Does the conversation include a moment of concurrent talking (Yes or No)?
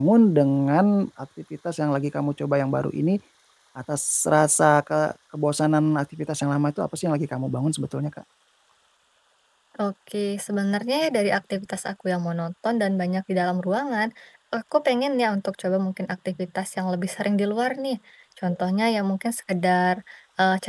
No